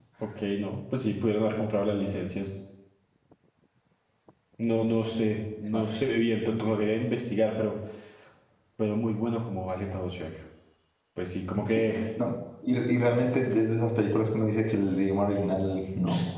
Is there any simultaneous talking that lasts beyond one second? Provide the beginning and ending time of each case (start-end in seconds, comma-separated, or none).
none